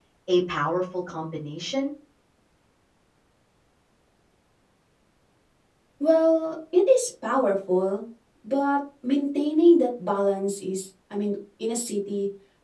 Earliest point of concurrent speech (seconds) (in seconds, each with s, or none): none